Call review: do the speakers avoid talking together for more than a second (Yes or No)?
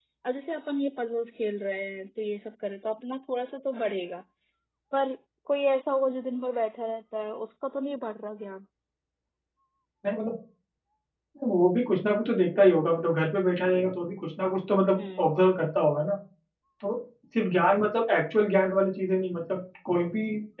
Yes